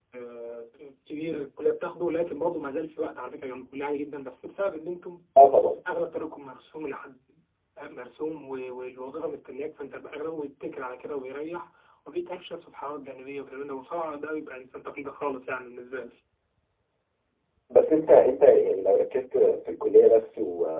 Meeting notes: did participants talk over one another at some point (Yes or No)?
No